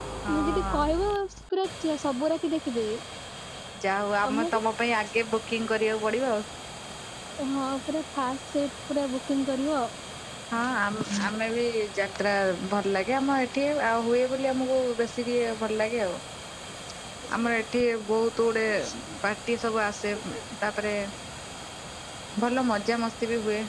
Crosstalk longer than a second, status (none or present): none